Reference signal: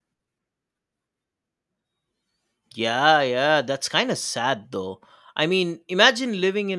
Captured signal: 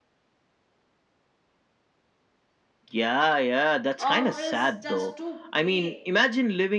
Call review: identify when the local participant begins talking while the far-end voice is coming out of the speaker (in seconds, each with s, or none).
4.0 s